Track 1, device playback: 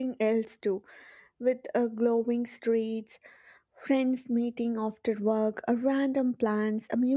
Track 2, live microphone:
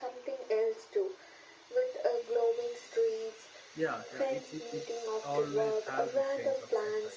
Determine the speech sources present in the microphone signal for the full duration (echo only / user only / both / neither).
both